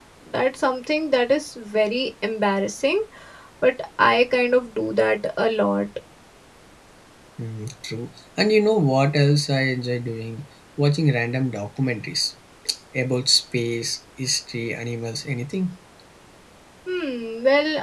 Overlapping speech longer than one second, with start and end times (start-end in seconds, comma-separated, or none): none